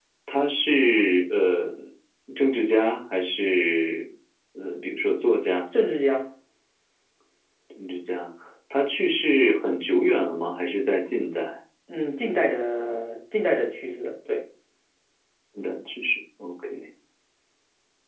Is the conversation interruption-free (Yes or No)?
Yes